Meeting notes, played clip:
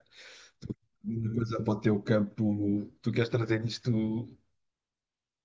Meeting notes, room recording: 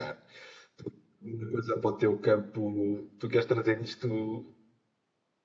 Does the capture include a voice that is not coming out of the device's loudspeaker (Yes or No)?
No